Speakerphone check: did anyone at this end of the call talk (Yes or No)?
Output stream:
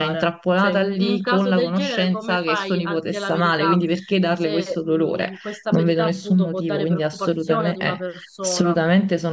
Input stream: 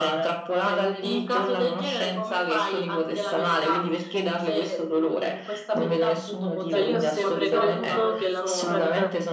Yes